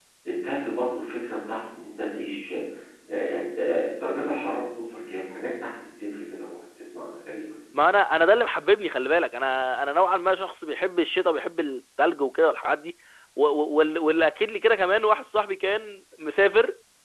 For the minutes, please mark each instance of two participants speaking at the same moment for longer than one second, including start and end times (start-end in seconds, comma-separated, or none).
none